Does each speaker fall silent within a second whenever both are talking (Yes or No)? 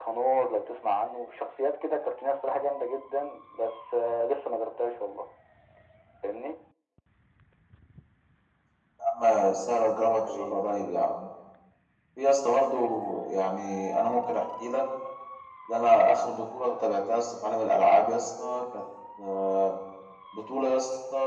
Yes